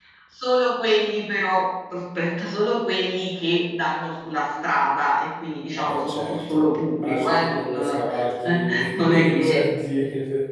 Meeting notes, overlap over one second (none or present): present